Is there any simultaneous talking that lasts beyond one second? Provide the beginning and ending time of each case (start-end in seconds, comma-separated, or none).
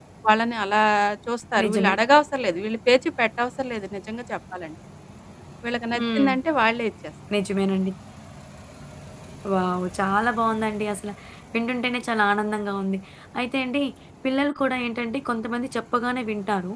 none